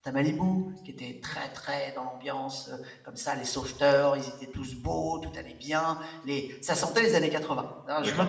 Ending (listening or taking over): taking over